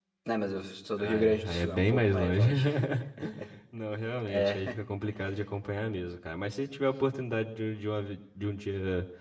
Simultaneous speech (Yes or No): Yes